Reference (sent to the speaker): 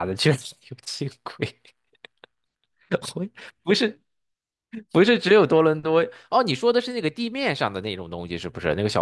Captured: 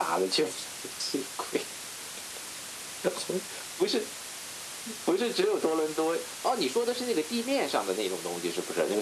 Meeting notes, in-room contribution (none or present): none